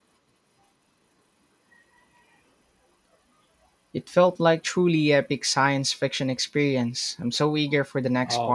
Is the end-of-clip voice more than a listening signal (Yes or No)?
Yes